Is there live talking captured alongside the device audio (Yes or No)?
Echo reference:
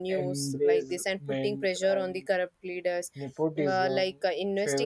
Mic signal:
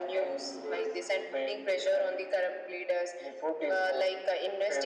No